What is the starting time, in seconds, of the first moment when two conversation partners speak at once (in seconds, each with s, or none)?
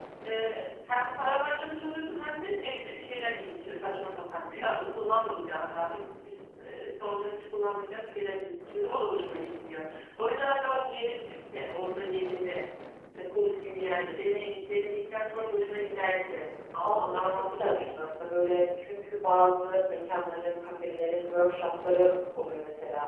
16.8 s